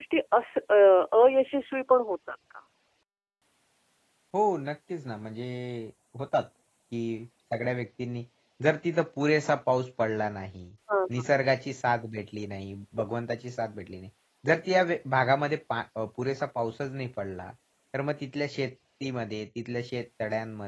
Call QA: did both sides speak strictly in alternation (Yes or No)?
Yes